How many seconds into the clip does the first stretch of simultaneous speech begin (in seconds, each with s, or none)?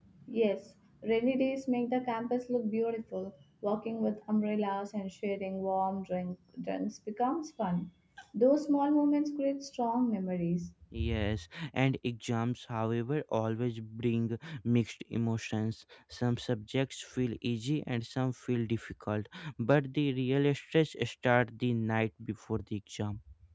none